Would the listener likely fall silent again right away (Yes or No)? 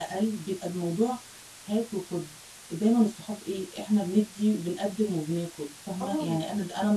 Yes